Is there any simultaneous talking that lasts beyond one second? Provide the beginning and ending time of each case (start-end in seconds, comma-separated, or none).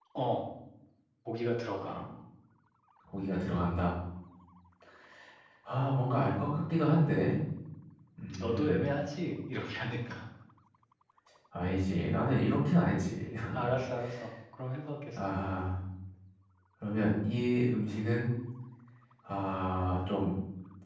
none